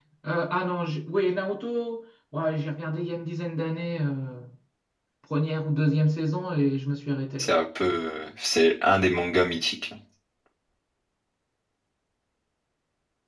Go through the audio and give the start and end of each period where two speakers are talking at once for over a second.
none

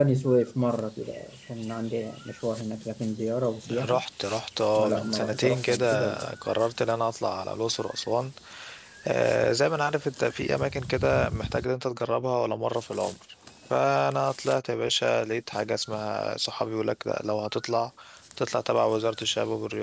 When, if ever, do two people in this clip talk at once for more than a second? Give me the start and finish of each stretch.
4.8-6.3

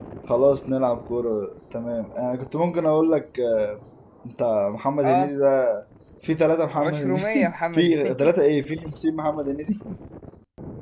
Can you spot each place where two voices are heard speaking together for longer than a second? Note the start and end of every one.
6.8-8.3

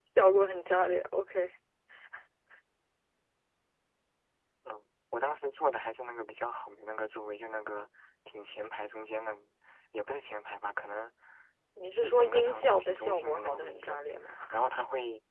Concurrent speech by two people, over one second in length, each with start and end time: 12.0-14.0

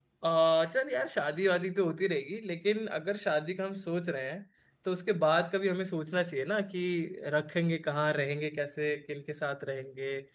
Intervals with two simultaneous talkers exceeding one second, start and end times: none

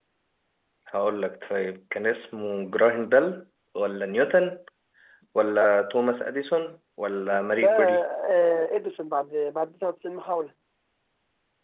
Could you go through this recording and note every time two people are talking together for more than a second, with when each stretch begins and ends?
none

